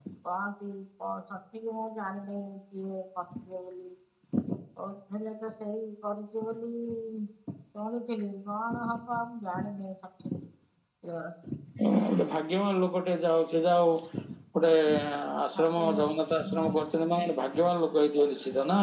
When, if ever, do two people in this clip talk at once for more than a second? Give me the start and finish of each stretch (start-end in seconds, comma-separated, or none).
15.6-16.8